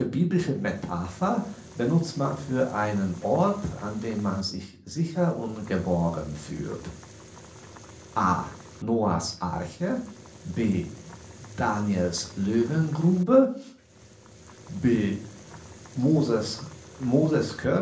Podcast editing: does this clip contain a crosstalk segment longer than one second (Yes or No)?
No